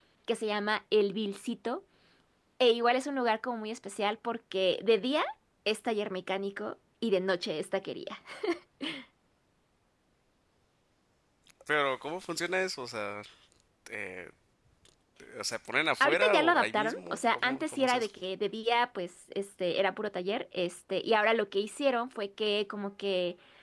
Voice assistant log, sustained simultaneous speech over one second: present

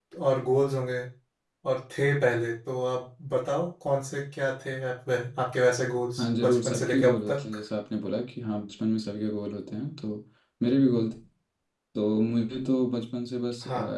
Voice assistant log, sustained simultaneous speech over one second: present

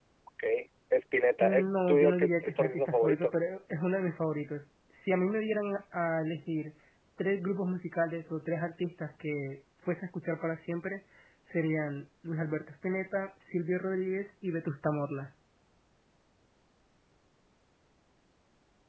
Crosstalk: present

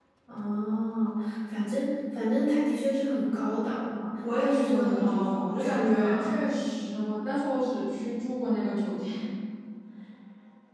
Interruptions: present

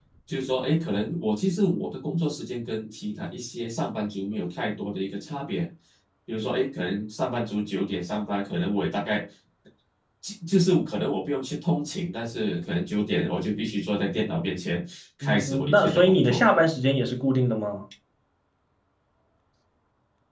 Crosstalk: present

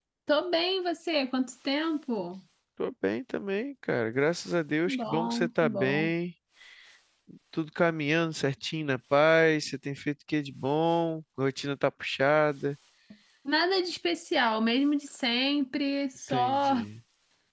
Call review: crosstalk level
present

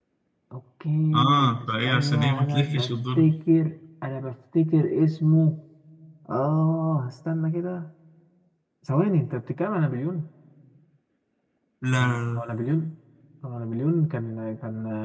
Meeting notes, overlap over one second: present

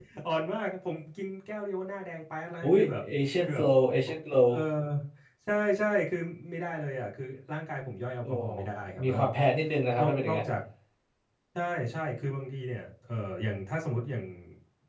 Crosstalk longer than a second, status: none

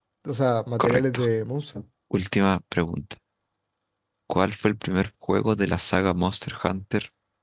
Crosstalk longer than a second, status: none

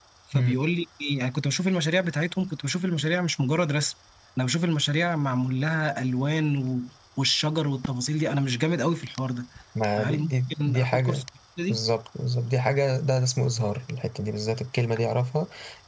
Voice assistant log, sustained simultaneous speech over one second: present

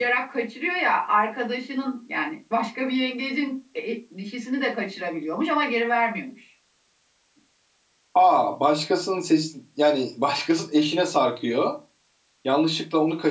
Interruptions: none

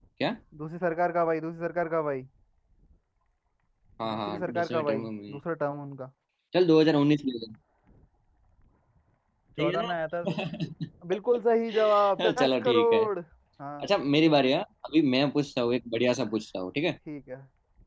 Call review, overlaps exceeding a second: present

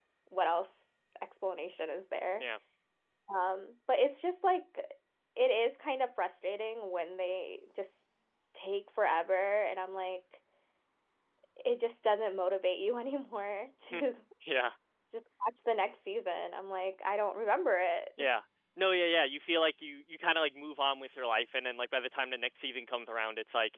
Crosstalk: none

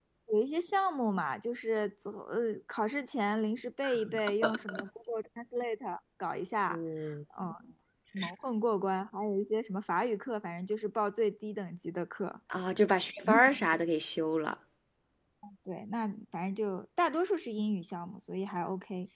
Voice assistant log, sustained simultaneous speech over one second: none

